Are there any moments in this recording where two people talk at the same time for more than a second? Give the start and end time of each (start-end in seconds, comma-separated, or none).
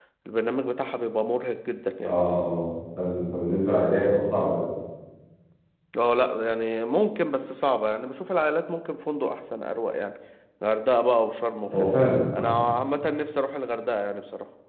none